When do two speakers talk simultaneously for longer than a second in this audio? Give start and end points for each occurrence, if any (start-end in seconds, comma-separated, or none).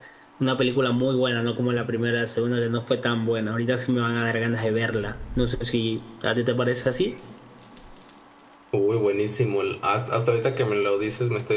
none